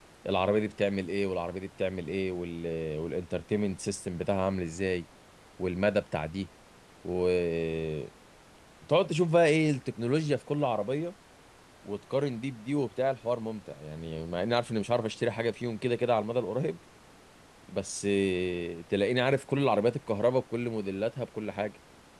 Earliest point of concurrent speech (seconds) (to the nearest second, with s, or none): none